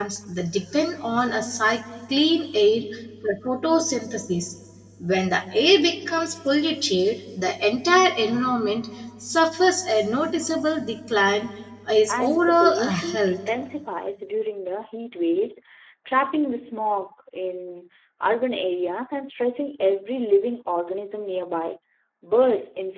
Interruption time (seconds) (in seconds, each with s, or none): 12.1 s